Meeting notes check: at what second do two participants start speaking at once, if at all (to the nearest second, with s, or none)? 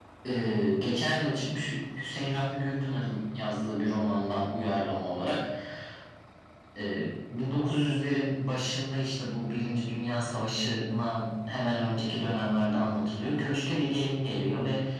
none